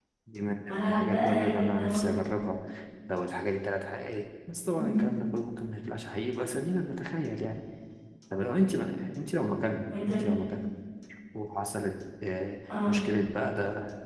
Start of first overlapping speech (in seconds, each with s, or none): 0.6 s